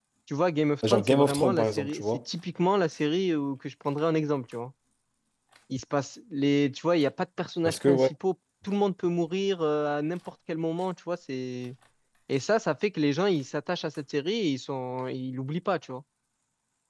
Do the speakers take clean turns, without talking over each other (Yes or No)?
No